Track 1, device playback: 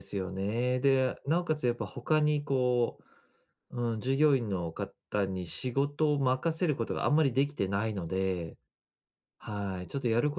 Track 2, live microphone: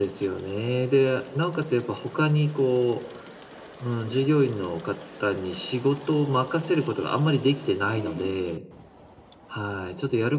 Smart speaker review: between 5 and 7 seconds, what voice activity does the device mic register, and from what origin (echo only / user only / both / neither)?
echo only